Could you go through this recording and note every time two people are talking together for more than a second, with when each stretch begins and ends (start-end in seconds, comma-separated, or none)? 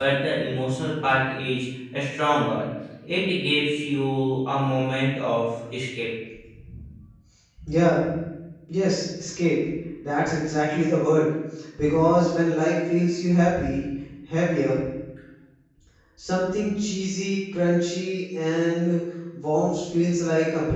none